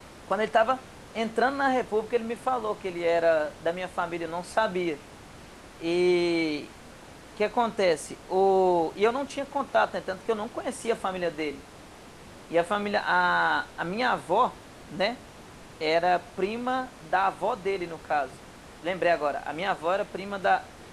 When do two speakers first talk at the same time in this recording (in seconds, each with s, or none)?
none